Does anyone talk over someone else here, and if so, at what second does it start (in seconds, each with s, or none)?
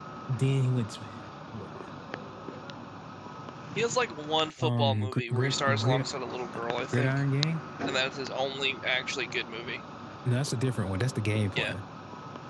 4.6 s